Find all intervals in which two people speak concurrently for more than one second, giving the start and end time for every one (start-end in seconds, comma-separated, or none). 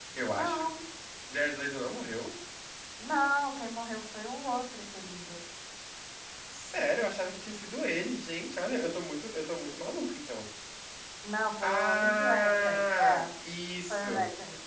11.6-13.2